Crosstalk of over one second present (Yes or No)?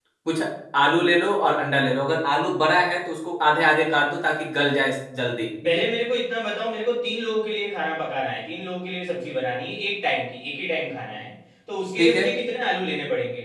No